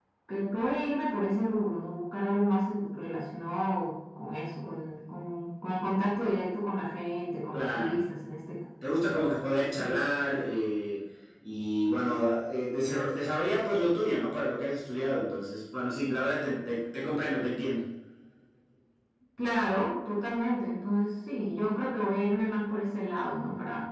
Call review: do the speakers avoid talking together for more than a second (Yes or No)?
Yes